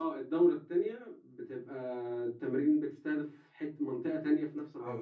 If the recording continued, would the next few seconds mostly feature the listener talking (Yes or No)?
Yes